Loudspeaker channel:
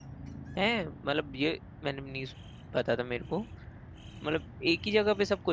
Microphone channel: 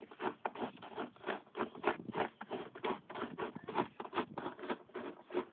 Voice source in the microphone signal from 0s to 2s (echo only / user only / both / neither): neither